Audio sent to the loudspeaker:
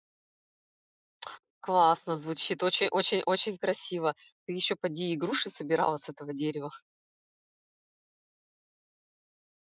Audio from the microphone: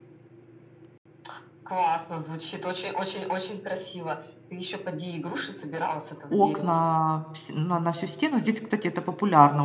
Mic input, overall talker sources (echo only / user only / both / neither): both